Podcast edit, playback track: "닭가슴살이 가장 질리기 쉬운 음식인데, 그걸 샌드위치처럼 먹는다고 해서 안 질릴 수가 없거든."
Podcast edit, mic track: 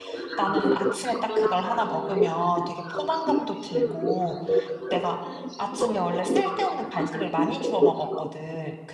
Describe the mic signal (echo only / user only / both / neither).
both